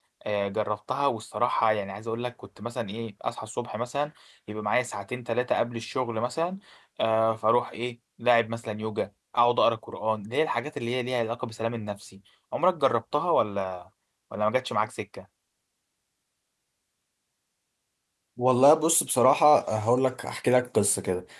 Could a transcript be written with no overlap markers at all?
Yes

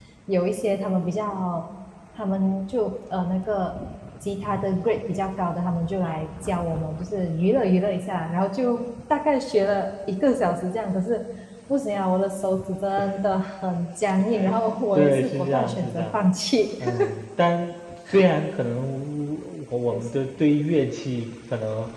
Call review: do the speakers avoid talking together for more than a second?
No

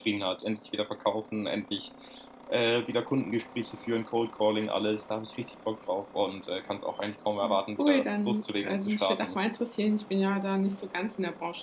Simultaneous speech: Yes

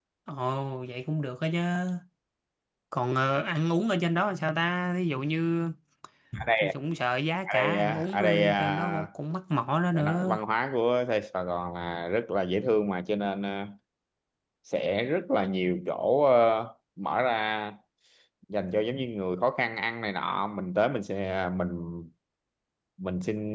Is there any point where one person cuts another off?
Yes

